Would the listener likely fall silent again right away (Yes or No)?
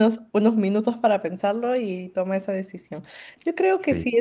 Yes